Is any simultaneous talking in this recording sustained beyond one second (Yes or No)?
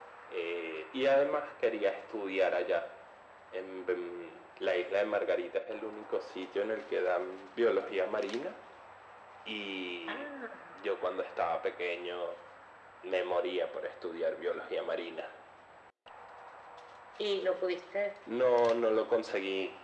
No